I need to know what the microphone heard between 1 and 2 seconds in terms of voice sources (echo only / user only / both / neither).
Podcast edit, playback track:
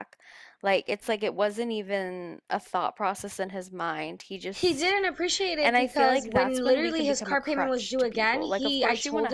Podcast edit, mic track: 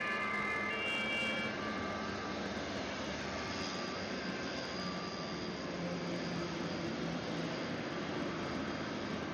neither